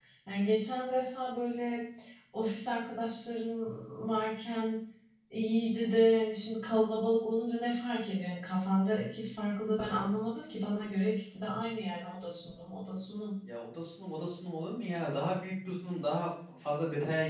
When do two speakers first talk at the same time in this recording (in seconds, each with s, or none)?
none